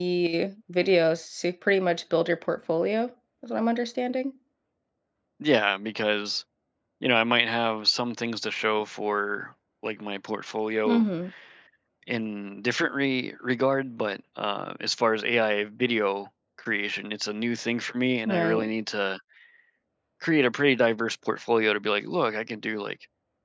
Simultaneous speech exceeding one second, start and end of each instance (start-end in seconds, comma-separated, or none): none